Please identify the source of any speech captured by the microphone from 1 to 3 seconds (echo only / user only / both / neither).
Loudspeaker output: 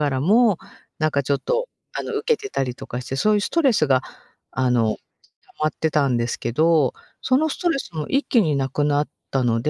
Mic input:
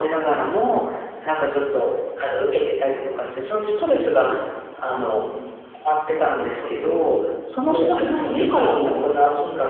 echo only